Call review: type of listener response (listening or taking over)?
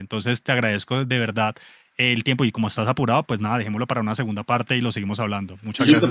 taking over